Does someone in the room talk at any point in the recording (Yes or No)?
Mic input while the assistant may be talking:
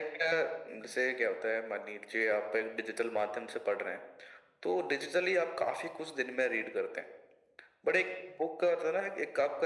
No